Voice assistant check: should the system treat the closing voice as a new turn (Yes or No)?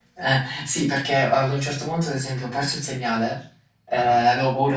No